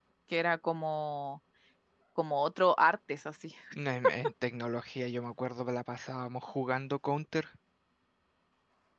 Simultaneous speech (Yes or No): No